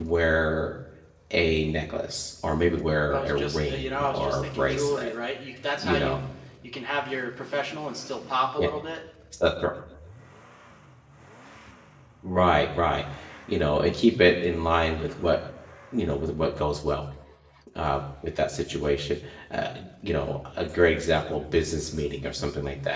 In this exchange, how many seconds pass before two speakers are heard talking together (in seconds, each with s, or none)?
3.1 s